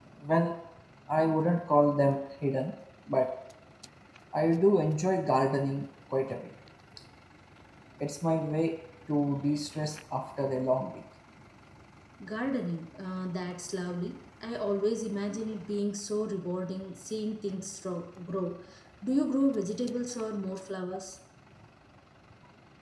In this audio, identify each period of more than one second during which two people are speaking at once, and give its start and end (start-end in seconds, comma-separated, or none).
none